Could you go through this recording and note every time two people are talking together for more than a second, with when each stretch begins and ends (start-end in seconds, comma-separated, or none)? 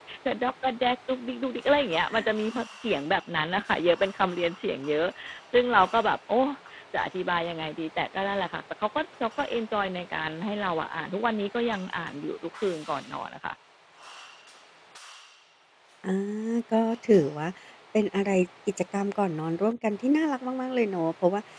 none